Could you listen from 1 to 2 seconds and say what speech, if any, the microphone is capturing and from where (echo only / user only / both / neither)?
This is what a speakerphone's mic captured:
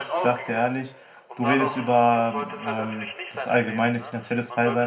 both